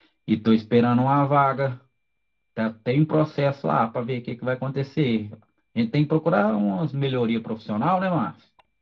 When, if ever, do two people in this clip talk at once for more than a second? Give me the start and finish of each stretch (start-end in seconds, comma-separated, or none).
none